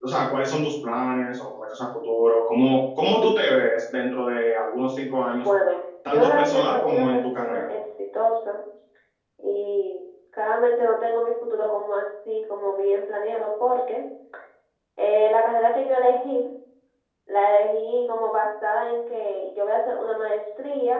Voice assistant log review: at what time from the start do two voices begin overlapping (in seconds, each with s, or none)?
6.1 s